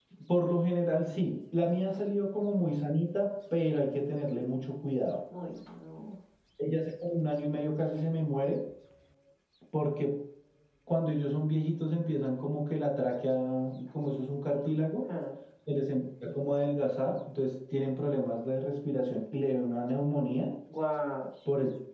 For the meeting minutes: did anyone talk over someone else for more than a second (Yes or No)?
No